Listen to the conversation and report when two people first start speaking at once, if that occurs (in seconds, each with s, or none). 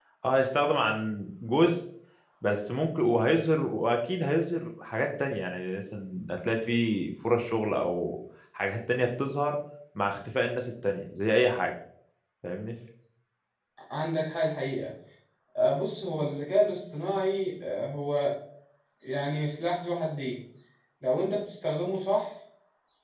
none